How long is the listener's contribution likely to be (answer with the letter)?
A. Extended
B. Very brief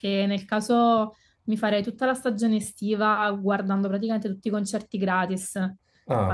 B